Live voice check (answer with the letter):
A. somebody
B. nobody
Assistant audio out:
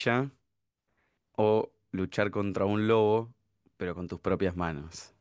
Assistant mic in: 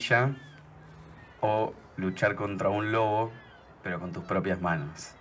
B